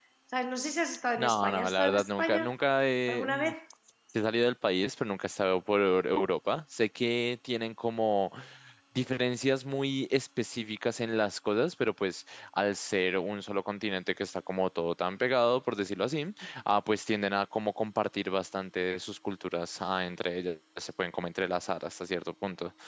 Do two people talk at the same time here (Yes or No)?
Yes